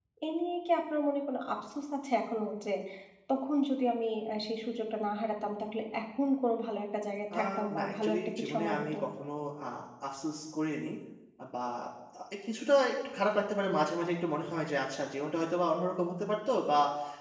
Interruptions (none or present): present